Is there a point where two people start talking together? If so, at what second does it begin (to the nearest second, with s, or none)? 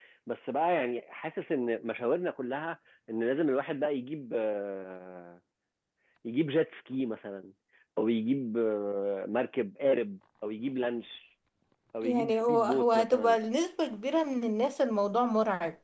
12 s